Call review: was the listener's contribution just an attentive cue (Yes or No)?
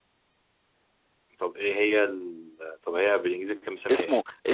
No